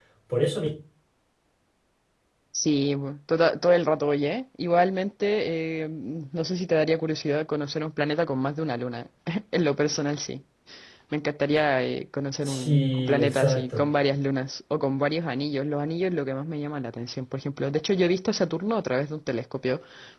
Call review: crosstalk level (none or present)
present